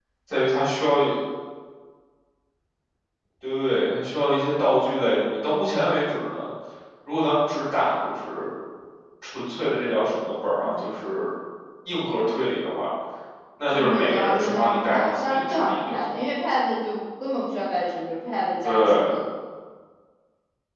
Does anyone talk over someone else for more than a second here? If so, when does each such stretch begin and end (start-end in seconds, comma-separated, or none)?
13.7-16.0